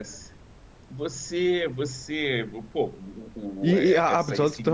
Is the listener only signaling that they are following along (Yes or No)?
No